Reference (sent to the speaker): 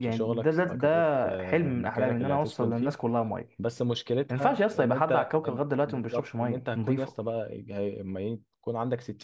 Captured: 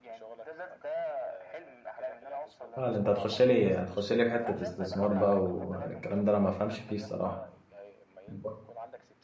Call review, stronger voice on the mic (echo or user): user